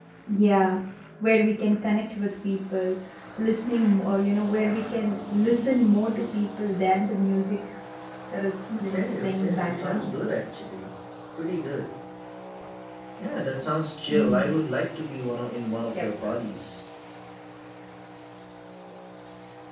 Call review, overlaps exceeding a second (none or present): present